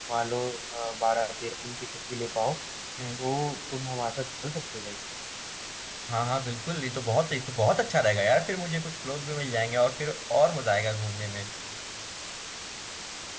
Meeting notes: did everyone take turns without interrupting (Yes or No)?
Yes